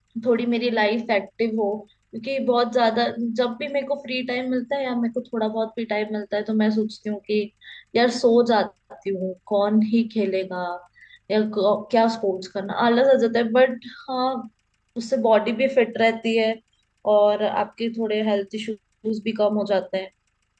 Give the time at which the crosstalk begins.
none

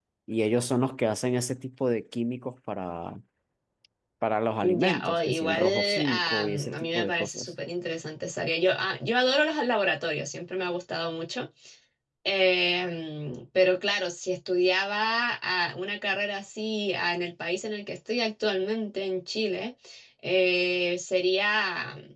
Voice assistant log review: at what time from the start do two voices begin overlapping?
4.7 s

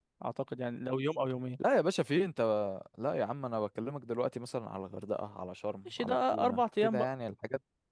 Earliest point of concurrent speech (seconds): 5.8 s

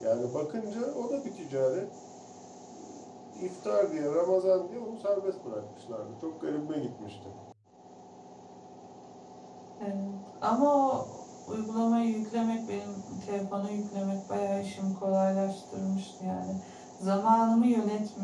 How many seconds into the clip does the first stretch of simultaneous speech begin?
none

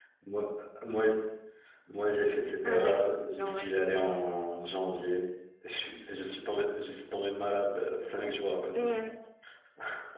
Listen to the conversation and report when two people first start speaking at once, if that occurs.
2.6 s

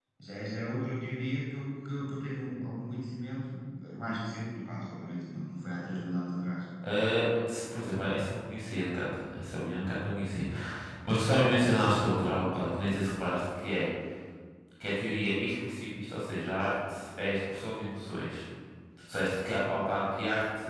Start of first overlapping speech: none

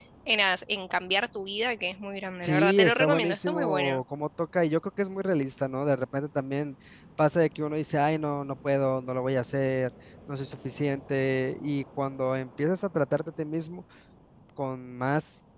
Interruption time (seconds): 2.4 s

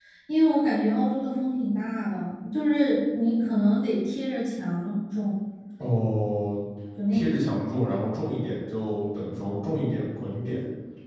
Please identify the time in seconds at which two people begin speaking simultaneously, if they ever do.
none

